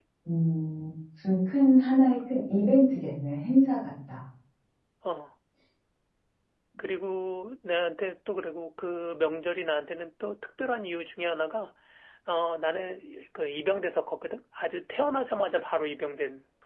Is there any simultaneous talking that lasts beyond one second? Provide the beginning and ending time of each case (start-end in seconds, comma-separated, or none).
none